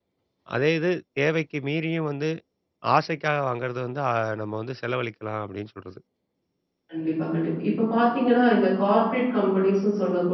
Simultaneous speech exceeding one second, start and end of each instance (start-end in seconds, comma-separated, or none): none